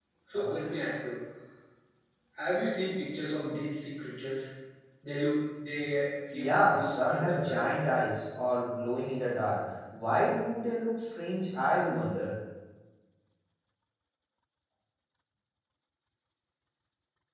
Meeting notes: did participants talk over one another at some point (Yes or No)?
Yes